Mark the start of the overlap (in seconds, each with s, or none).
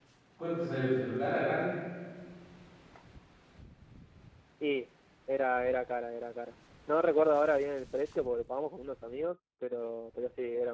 none